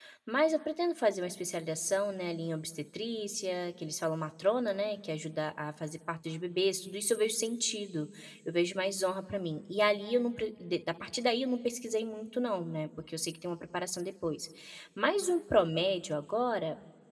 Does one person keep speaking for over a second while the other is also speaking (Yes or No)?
No